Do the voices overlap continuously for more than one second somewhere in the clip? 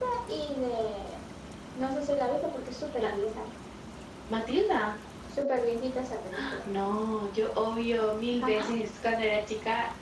No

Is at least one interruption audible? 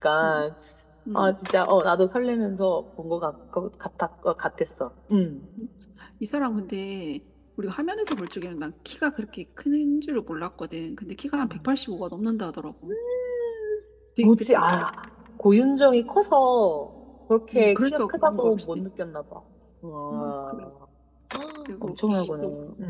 Yes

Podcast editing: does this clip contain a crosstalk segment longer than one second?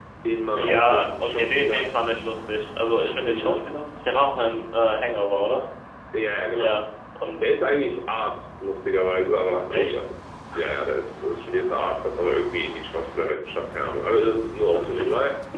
Yes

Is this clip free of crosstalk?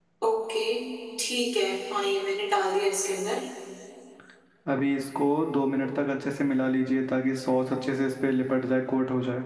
Yes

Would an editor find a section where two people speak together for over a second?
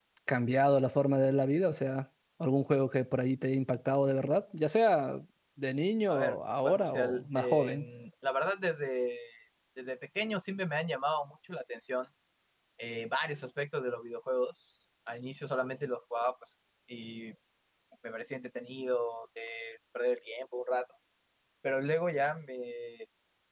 Yes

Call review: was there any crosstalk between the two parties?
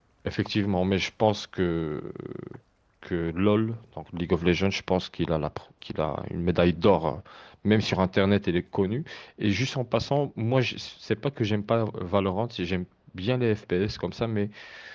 No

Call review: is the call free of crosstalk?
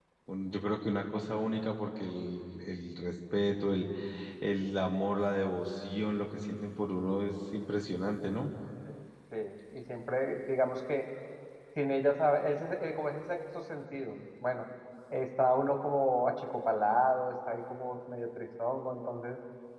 Yes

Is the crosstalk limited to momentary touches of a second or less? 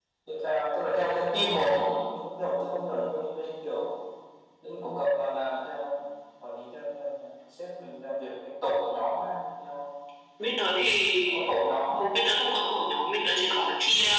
Yes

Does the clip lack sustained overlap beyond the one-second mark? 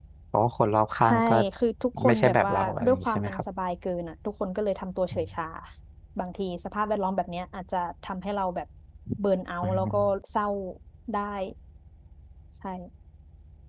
No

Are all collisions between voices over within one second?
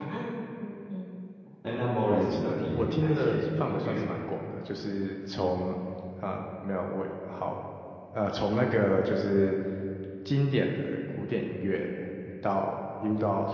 No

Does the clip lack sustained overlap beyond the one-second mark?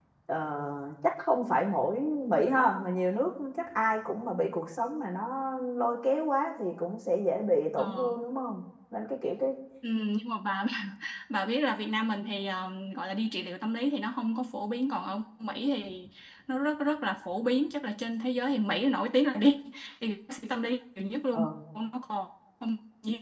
Yes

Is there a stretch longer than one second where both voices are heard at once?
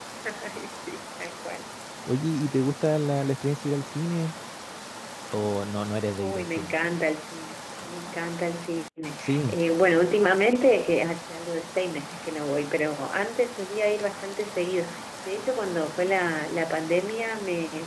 No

